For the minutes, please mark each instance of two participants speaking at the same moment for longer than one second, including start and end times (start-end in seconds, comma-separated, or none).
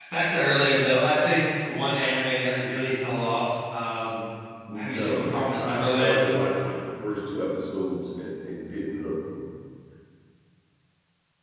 4.8-6.3